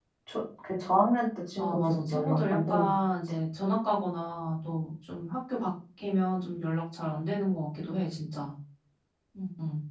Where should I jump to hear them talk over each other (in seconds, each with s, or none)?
1.6 s